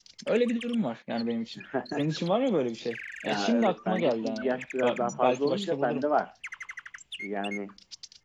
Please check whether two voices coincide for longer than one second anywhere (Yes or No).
Yes